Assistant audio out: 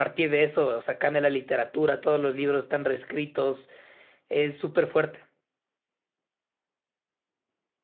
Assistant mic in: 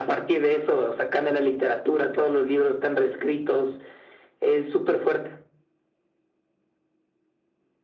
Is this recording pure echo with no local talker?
Yes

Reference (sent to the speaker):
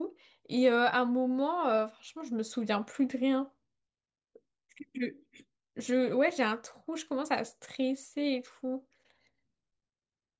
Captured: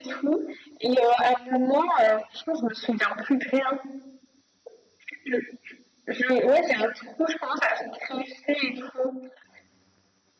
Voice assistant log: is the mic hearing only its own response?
Yes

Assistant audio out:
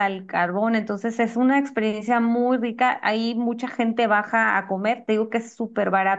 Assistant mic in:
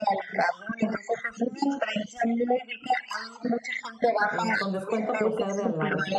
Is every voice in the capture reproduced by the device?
No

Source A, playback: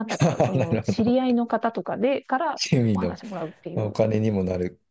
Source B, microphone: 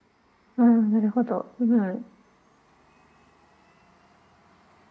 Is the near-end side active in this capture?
Yes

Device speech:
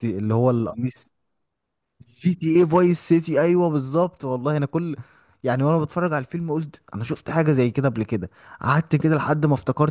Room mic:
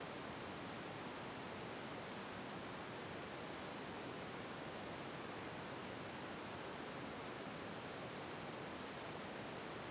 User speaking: No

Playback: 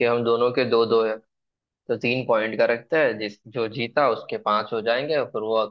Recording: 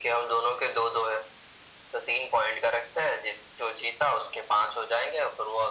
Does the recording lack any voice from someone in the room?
Yes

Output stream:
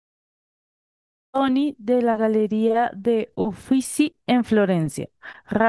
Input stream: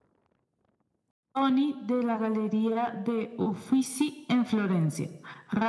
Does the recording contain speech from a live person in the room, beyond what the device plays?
No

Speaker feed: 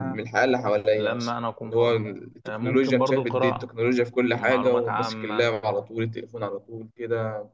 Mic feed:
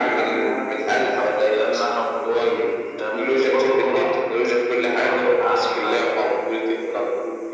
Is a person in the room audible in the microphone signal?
No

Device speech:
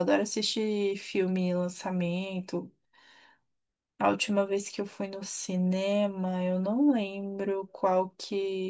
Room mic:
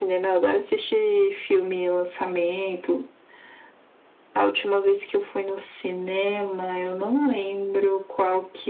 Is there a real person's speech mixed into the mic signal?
No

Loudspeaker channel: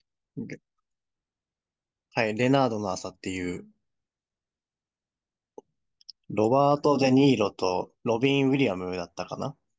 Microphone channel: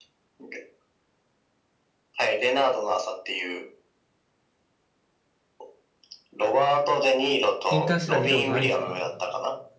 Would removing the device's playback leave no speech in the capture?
No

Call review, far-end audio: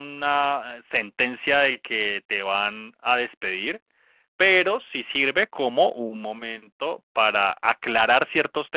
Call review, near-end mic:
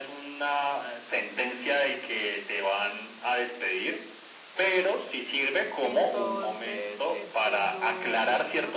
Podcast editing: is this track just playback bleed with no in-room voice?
No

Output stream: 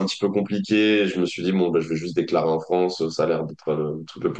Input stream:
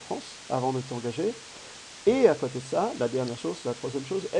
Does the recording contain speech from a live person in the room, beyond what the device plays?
Yes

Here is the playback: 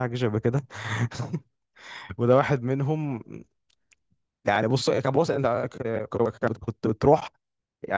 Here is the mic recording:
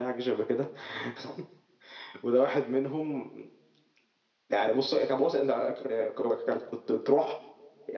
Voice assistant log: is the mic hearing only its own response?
Yes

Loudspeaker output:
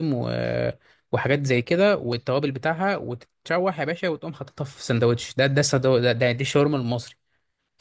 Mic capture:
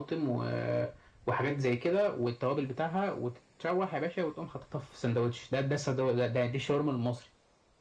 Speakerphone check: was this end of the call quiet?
Yes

